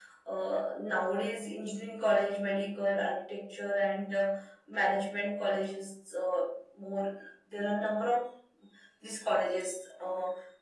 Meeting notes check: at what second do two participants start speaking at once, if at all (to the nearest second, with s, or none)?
none